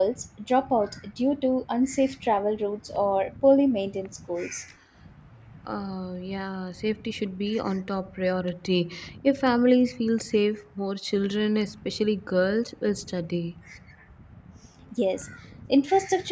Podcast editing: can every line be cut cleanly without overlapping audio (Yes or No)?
Yes